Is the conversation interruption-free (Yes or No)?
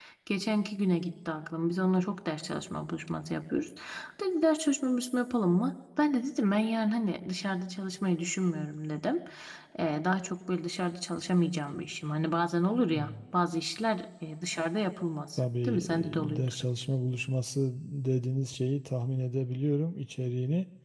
No